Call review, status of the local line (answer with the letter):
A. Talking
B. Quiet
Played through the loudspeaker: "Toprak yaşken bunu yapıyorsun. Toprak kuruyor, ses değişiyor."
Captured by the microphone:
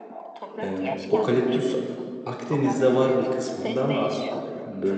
A